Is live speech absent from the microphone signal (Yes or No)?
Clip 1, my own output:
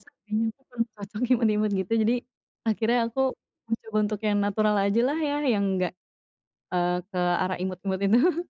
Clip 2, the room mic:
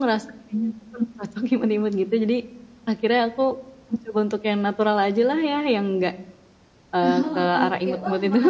No